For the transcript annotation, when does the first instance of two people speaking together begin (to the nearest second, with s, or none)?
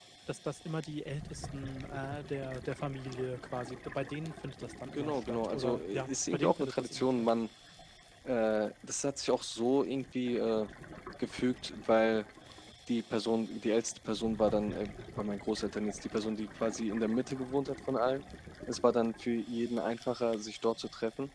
5 s